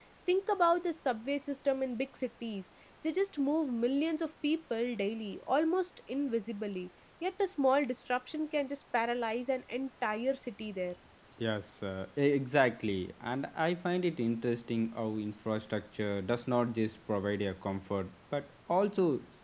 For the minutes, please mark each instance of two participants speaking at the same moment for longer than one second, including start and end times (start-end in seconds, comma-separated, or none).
none